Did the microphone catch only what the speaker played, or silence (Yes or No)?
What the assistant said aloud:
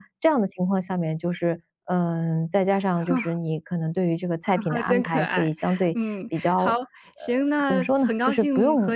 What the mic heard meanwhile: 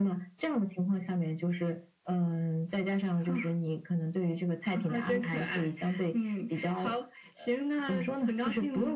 Yes